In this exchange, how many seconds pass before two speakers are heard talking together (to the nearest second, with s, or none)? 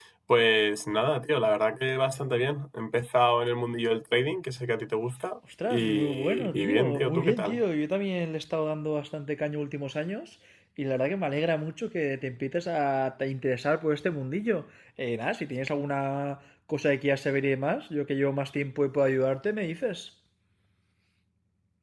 6 s